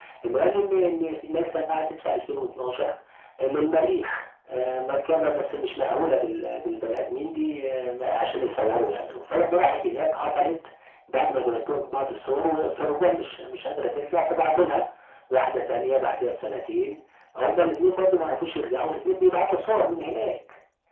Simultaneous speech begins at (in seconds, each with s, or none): none